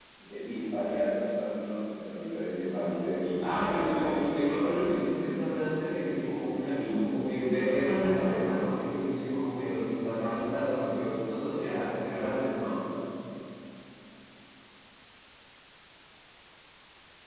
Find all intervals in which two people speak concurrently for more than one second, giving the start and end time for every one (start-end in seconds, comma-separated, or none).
3.1-4.9